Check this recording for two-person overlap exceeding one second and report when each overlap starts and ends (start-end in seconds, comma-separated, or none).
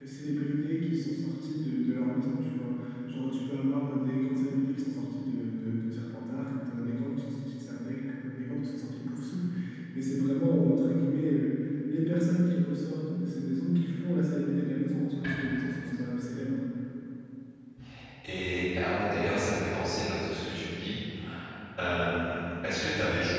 none